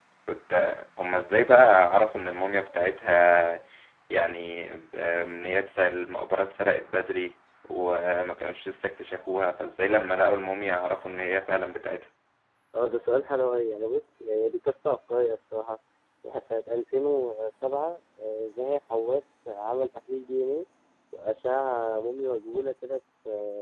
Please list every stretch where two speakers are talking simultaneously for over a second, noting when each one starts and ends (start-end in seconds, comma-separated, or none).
none